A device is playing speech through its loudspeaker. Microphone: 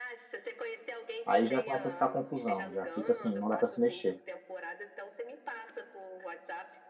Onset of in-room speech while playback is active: 1.2 s

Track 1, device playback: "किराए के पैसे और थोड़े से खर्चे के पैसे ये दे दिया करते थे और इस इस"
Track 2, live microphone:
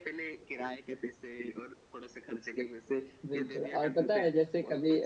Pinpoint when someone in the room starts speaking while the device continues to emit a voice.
3.2 s

